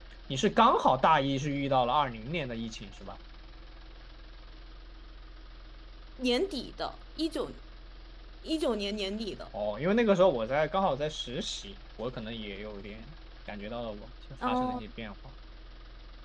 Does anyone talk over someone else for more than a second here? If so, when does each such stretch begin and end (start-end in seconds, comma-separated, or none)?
none